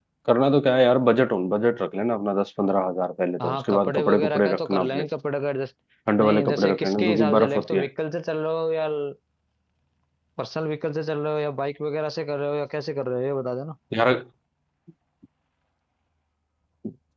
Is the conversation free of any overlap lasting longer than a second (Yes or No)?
No